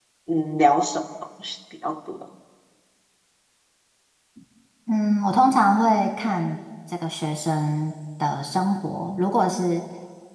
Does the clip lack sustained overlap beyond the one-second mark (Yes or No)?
Yes